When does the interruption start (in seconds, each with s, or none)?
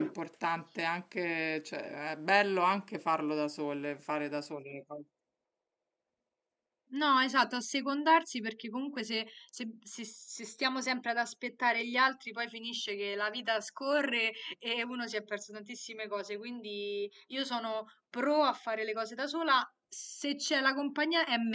none